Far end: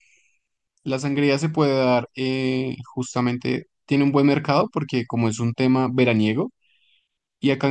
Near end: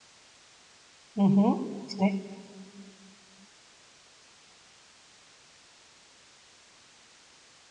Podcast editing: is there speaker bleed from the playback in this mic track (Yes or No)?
No